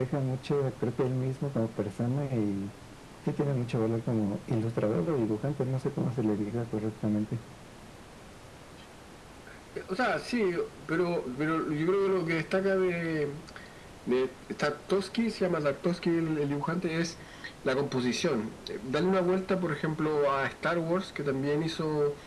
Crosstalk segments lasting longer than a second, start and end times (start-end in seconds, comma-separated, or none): none